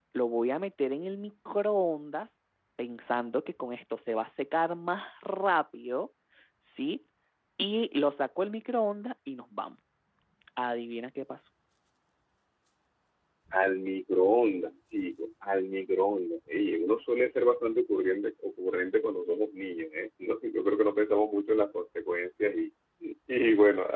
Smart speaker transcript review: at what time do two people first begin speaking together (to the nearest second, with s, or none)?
none